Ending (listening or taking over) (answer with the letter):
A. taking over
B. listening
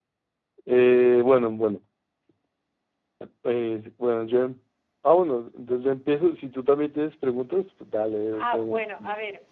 A